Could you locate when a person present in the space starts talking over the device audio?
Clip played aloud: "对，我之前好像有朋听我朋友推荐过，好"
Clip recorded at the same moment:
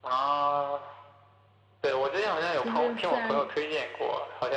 3 s

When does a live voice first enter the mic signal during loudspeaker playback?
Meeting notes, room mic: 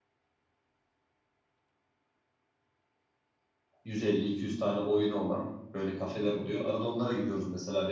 4 s

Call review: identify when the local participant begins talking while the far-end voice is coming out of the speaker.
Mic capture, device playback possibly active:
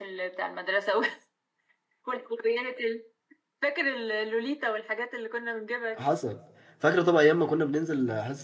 6 s

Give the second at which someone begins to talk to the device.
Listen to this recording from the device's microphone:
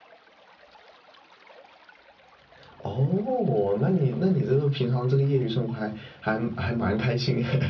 none

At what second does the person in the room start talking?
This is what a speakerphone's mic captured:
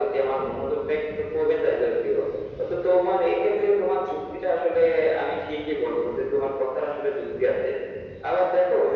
none

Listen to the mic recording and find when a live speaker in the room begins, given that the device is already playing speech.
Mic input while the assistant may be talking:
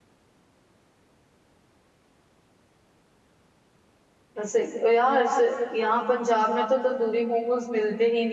4 s

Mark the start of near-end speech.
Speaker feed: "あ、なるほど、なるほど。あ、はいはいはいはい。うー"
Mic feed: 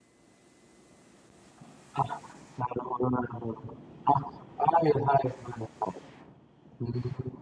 none

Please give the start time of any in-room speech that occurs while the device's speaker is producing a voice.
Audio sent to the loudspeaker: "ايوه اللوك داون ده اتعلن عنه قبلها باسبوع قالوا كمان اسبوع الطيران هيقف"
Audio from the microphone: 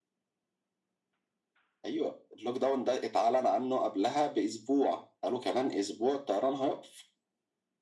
none

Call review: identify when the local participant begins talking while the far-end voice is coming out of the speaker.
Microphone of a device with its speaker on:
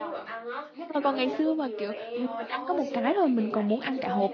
1 s

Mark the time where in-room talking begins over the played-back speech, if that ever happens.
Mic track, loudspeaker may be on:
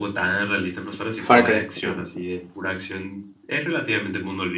1 s

